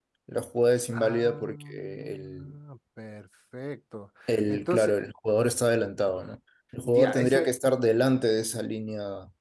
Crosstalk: present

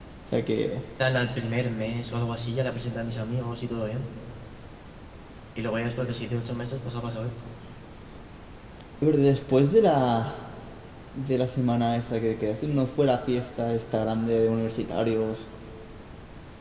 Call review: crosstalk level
none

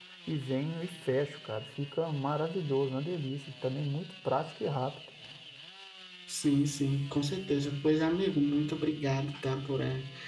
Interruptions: none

